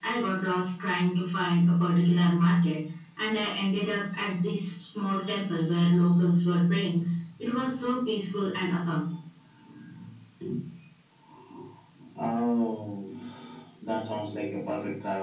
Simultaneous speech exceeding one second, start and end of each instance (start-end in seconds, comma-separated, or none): none